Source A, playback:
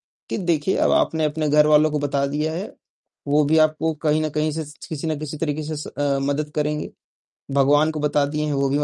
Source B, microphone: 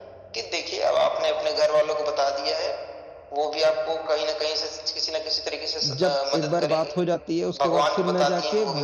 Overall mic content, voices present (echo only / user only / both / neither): both